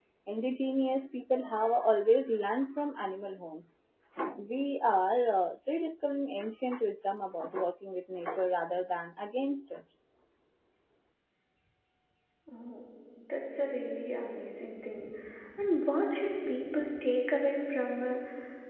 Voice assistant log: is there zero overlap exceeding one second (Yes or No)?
Yes